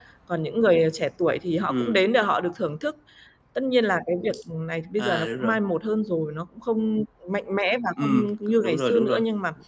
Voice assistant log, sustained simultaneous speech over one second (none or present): present